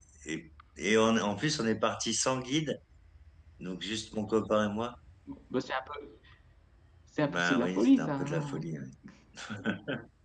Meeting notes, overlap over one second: present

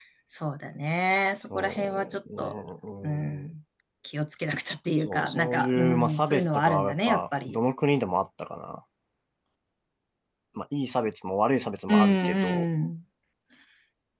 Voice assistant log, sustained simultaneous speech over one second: present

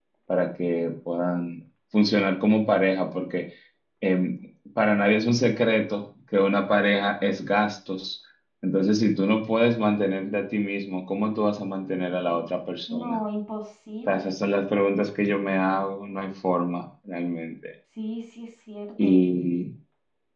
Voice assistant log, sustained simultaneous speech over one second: none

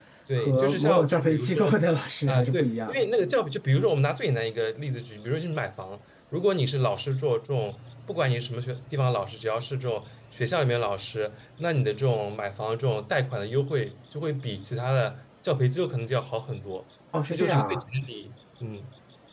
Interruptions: present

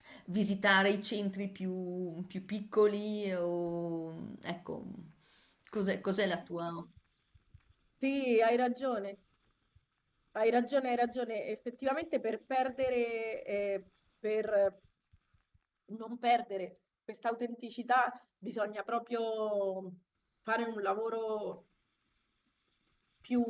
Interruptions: none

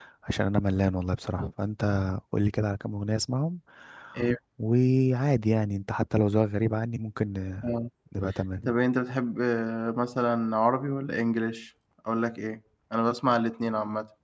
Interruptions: none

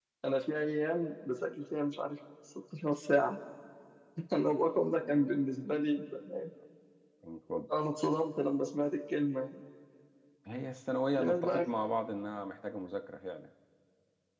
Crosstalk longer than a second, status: none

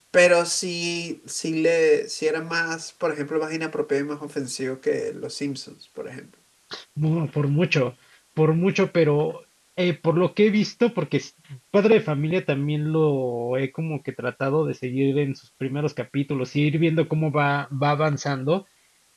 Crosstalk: none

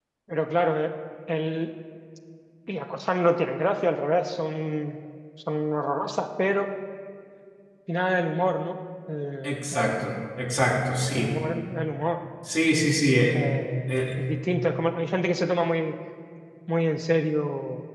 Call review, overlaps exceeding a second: none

